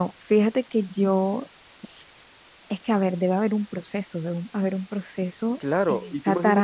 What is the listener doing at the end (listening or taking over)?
taking over